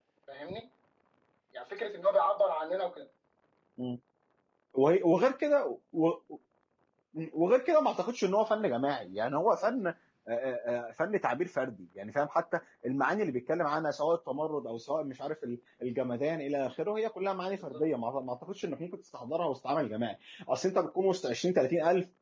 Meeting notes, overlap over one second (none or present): none